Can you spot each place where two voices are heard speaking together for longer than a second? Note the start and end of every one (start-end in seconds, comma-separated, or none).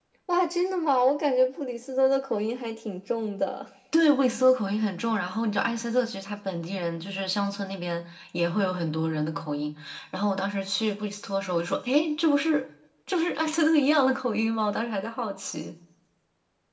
none